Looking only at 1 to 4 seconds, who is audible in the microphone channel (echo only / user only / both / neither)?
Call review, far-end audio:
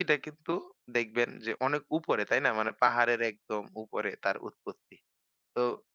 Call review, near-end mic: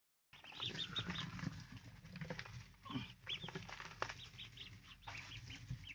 neither